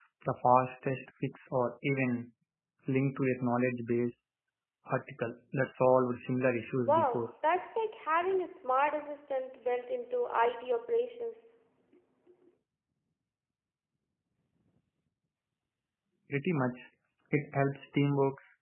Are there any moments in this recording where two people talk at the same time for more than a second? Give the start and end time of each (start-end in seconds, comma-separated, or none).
none